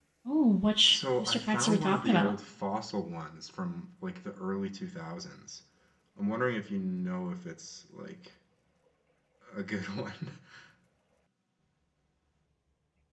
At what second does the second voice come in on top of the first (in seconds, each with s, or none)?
0.9 s